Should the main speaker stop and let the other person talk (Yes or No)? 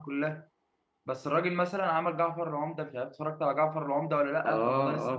Yes